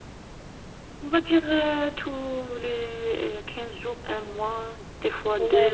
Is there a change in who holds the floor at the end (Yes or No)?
Yes